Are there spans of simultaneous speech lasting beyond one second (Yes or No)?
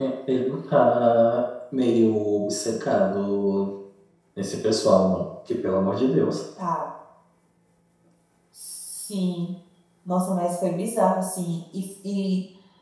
No